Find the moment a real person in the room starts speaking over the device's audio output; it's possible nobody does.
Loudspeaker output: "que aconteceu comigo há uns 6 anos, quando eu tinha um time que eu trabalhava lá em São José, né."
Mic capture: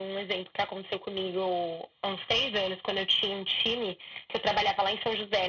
none

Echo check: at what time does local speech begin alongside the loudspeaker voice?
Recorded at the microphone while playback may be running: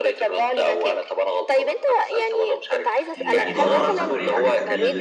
3 s

